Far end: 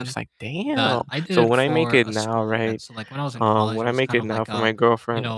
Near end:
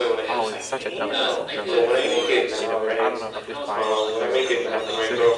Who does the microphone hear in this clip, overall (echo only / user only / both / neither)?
both